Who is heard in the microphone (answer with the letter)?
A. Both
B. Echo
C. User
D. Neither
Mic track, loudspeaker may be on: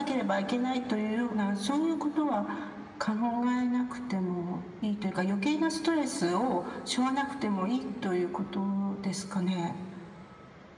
B